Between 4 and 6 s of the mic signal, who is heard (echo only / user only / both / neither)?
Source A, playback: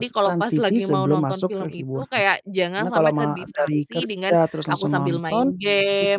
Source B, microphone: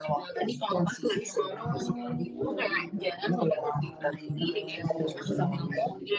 both